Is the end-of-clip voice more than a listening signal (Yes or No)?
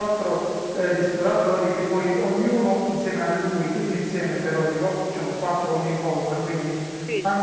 No